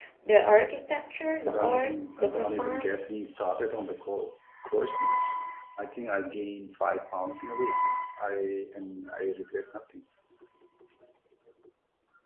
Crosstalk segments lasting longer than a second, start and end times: 1.5-2.9

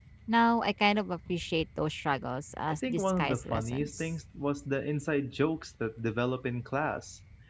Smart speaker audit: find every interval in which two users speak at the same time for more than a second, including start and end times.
2.8-4.1

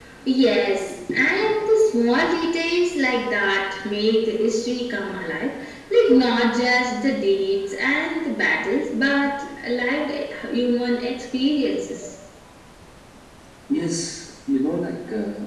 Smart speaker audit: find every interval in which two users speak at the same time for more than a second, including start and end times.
none

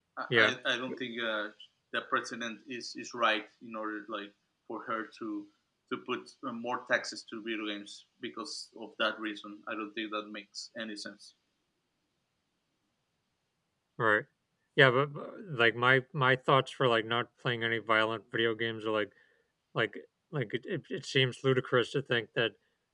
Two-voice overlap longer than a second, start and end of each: none

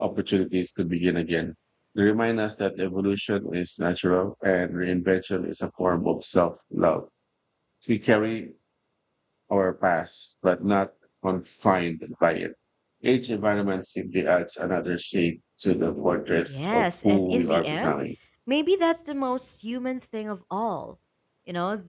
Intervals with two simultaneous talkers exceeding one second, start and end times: 16.7-17.9

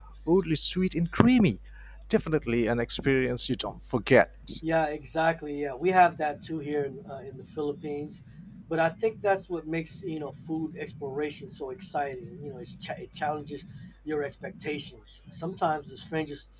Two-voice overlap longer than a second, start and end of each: none

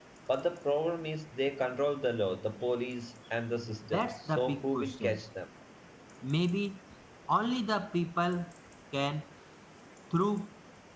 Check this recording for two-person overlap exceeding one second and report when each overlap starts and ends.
3.9-5.2

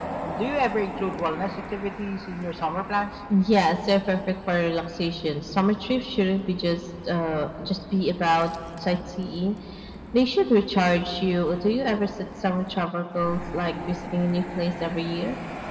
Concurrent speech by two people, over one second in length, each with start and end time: none

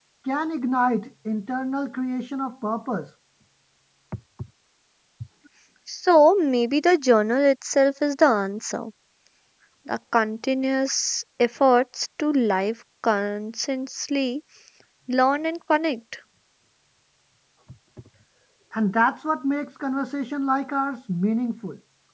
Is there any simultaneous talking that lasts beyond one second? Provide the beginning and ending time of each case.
none

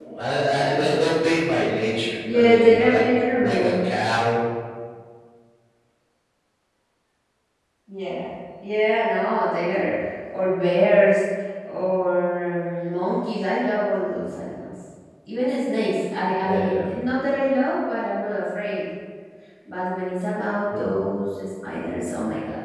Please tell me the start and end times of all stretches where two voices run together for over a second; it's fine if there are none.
2.2-3.7

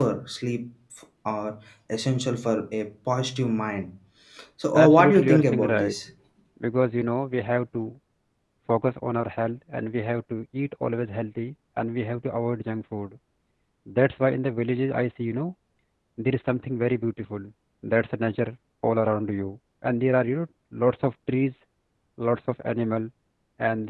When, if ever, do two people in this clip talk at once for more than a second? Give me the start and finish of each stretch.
4.7-5.9

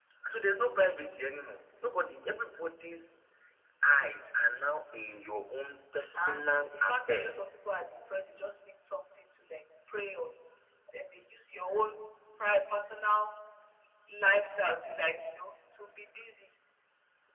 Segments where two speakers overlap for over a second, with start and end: 6.2-7.4

